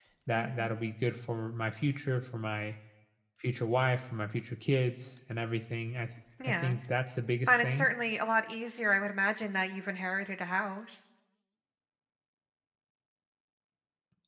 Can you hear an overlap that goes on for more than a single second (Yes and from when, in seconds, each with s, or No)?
No